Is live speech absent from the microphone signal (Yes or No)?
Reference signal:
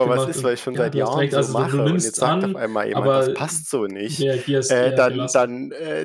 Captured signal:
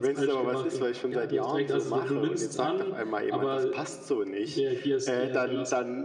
Yes